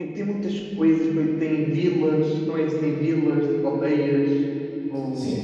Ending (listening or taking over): taking over